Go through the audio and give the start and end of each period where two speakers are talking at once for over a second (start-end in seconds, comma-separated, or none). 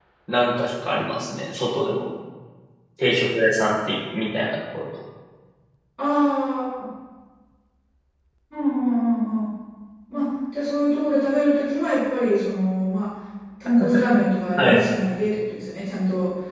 none